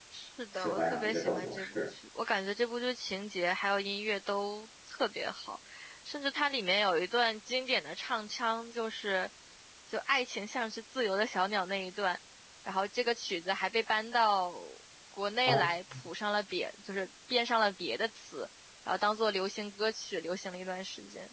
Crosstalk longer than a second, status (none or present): present